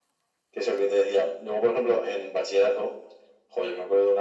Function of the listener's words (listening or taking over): listening